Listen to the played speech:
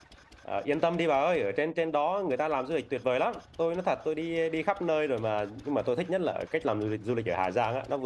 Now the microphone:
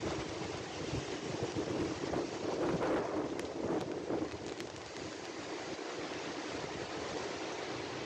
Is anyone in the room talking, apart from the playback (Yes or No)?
No